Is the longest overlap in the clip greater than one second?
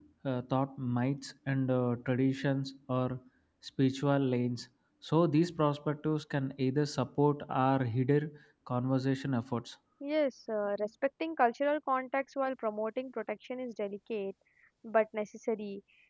No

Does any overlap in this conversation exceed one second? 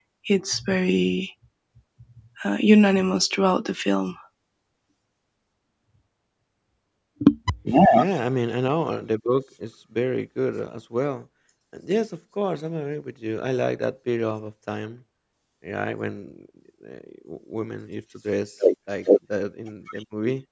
No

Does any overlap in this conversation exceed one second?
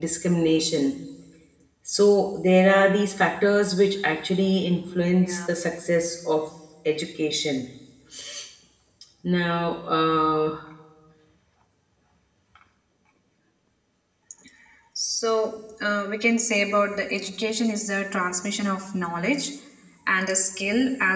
No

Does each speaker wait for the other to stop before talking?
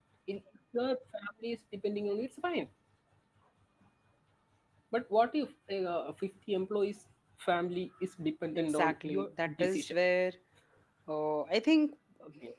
No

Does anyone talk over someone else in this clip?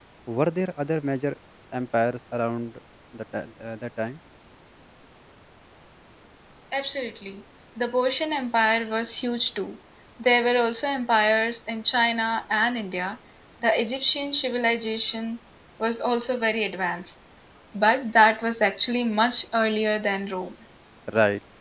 No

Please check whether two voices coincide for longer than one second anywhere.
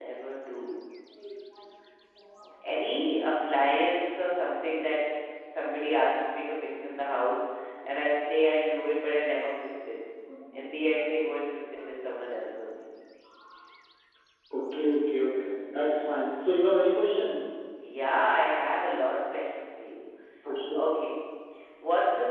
No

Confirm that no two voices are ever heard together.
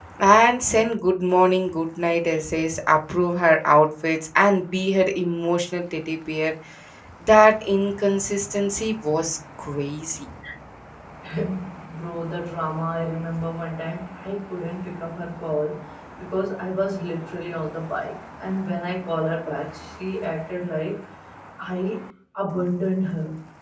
Yes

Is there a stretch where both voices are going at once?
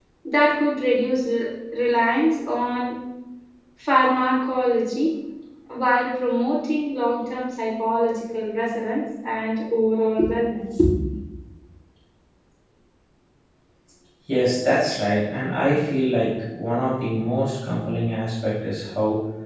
No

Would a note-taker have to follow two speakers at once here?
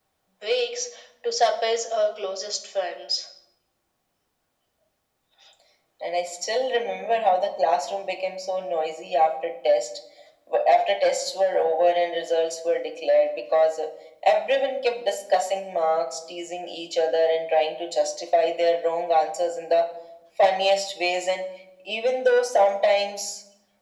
No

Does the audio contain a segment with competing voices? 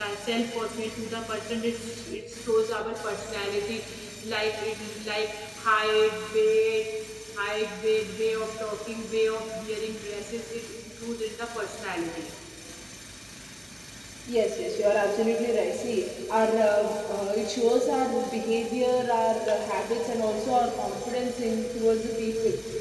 No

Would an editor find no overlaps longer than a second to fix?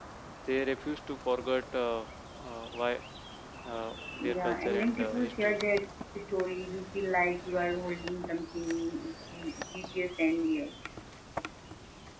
No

